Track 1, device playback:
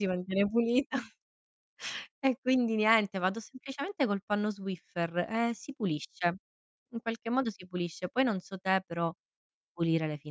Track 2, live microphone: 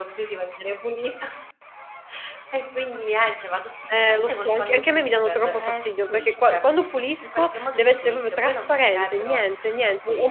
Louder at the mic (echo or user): user